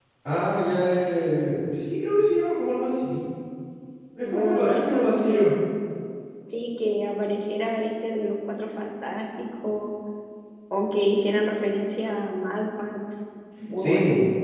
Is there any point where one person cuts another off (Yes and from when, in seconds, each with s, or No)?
Yes, from 4.2 s